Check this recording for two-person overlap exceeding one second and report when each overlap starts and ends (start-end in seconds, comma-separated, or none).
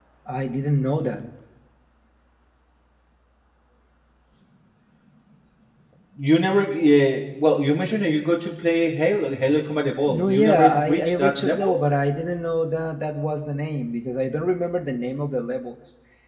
10.1-11.7